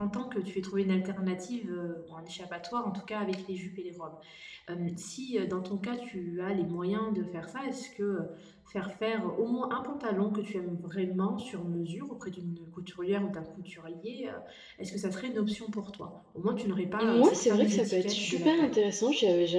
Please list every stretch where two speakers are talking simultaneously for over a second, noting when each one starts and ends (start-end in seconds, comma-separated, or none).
17.0-18.7